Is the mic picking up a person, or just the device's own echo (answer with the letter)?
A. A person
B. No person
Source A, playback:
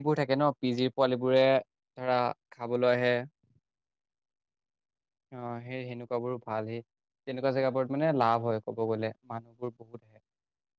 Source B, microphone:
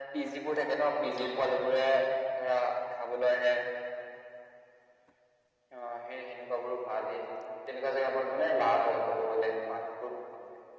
B